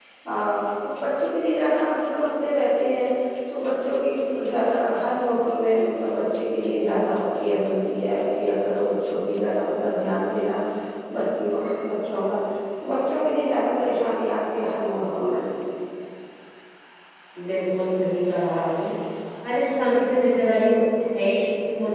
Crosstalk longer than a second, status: none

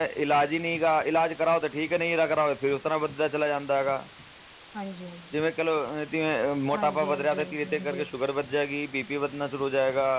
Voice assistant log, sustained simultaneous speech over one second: present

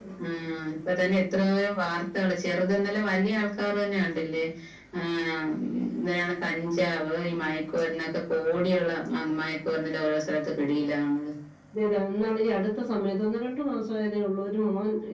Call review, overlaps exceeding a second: none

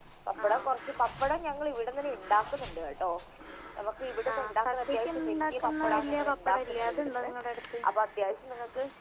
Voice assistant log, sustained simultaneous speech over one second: present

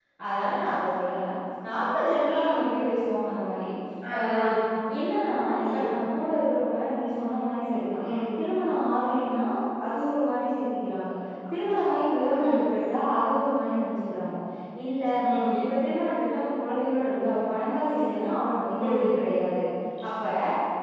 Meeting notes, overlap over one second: none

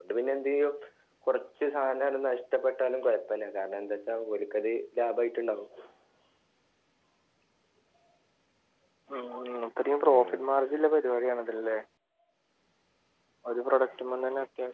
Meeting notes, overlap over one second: none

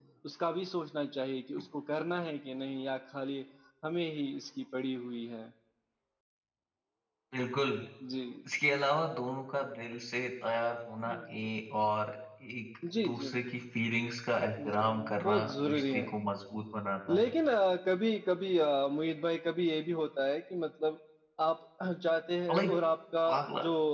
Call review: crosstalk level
present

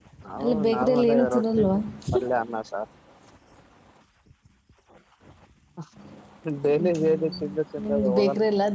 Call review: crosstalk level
present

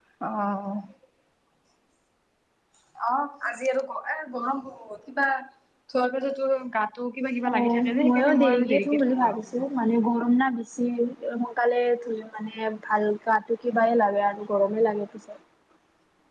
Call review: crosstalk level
present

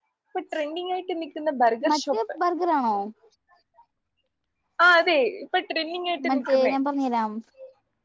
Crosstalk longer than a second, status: none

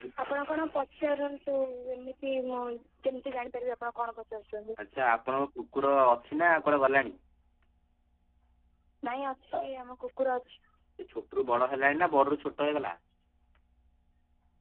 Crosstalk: none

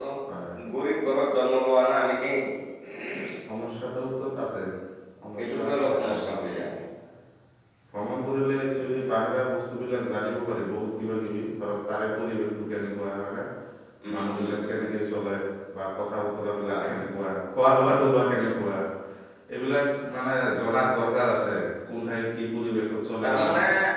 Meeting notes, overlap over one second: present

